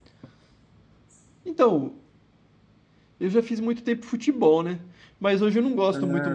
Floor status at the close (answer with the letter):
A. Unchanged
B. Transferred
A